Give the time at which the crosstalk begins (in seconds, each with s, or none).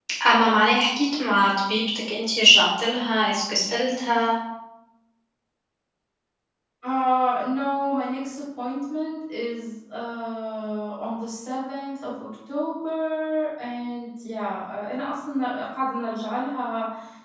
none